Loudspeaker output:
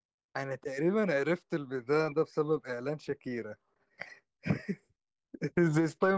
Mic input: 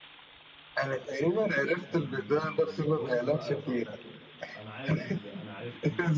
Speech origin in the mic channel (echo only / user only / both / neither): both